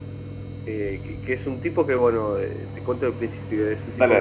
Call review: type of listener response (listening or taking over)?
listening